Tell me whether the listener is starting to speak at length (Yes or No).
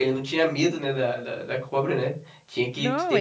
Yes